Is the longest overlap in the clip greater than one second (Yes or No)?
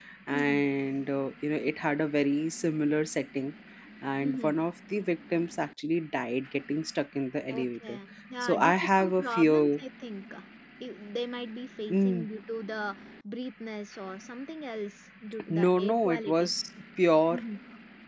Yes